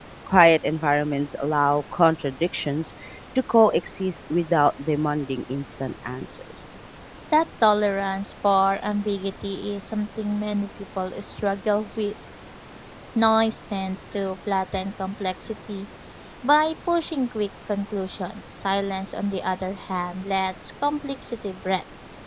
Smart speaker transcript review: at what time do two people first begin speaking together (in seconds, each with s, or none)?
none